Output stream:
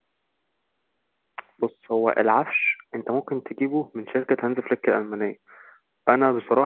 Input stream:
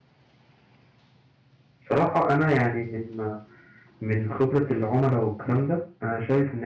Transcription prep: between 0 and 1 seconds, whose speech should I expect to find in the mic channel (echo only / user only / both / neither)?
neither